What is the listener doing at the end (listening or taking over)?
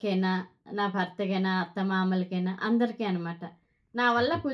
listening